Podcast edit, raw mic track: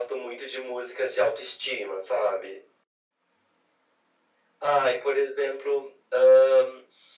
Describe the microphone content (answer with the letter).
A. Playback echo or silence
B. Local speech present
A